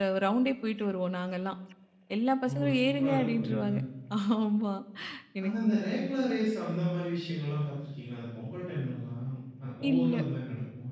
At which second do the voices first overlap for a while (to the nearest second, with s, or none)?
2 s